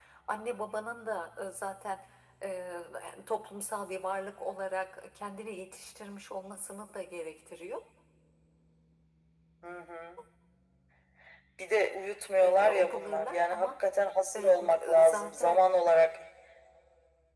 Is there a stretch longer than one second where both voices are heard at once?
Yes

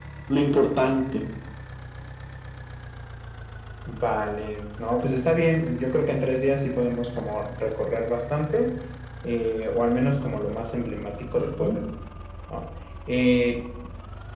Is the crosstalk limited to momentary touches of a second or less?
Yes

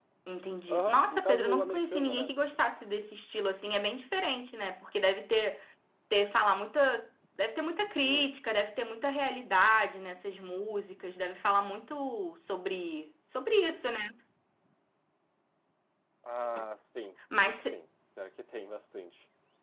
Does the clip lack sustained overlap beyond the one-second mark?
No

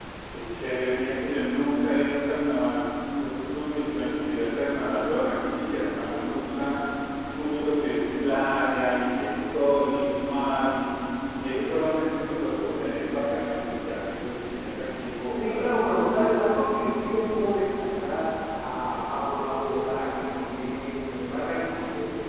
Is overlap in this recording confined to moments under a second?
Yes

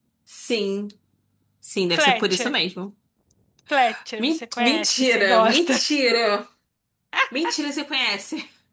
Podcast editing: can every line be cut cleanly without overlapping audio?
No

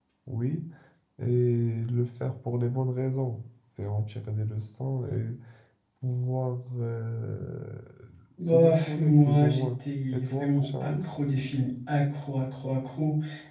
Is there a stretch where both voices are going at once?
Yes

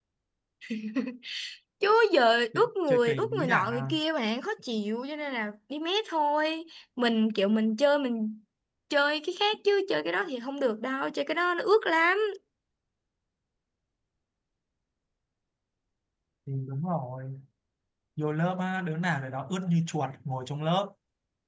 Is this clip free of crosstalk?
No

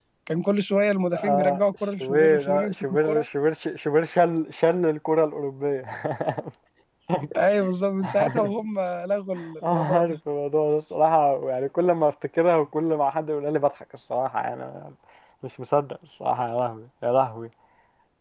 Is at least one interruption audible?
Yes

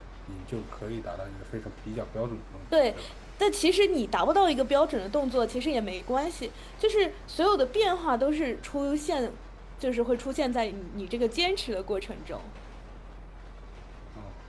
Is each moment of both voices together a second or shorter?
Yes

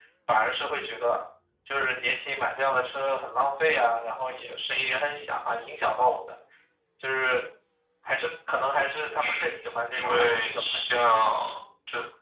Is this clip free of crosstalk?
No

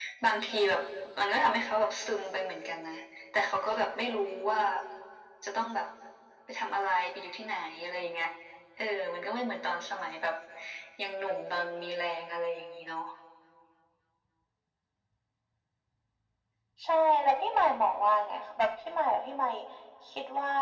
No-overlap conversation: Yes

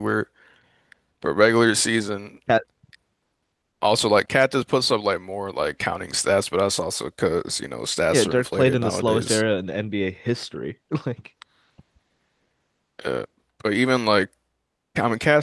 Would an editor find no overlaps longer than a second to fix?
No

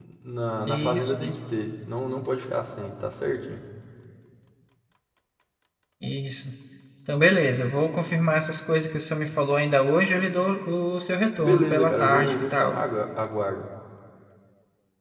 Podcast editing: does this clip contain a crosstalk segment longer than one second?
Yes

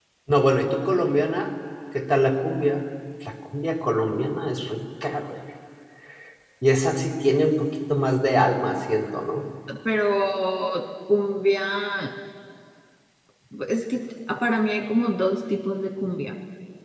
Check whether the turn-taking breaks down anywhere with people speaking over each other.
No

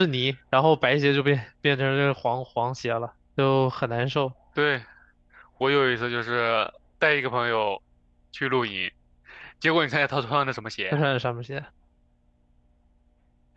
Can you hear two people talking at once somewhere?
No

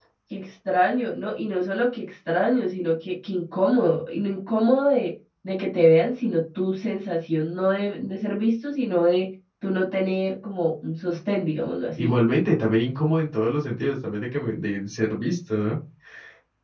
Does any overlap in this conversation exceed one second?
No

